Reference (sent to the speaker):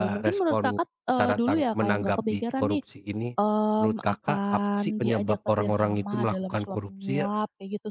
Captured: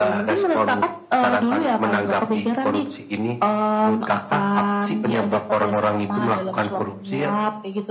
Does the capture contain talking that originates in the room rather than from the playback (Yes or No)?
No